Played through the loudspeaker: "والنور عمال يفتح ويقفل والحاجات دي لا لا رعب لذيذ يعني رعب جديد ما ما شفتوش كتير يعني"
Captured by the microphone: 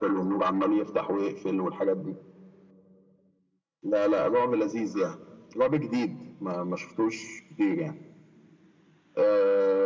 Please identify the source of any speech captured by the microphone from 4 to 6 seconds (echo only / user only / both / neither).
echo only